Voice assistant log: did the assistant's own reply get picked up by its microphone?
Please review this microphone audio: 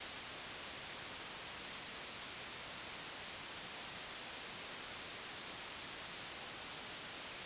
No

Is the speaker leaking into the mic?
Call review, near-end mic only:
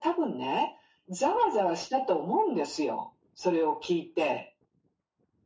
Yes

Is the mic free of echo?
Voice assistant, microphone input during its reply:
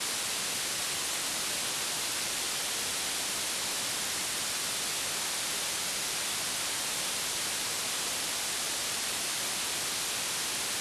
Yes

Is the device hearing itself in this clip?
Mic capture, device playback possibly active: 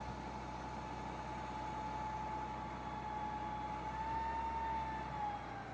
No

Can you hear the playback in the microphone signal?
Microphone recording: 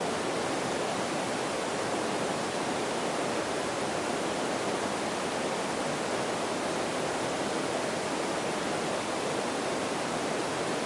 No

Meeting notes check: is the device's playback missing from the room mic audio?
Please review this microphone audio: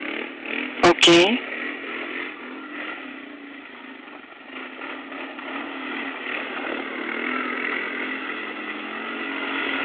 Yes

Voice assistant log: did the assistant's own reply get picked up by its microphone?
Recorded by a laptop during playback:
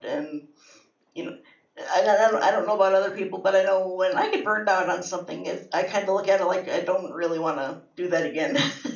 No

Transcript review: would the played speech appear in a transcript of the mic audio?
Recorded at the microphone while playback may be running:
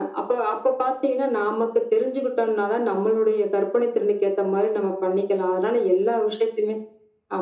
Yes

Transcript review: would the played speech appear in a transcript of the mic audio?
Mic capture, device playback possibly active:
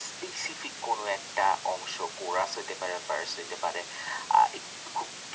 Yes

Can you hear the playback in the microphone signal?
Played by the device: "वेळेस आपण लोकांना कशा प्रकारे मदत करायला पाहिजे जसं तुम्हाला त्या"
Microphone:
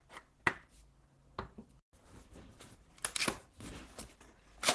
No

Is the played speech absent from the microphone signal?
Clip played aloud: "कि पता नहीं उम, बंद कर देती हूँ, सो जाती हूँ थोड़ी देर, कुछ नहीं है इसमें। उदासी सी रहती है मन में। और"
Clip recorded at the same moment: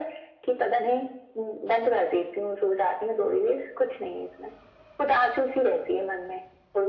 No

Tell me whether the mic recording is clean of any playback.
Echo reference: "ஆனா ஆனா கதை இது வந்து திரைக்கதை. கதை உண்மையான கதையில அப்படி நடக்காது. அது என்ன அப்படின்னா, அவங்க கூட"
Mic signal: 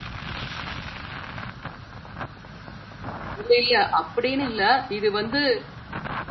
Yes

